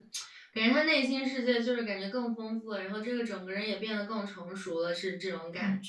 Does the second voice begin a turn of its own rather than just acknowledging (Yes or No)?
Yes